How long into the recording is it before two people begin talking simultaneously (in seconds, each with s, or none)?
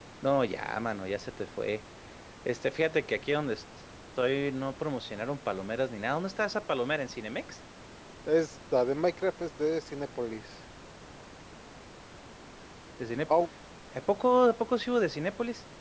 none